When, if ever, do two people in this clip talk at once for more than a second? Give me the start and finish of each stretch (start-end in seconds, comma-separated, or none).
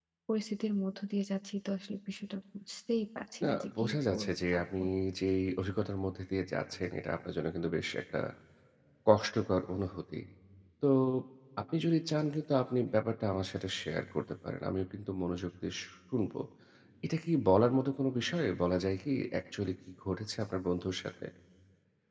3.4-4.6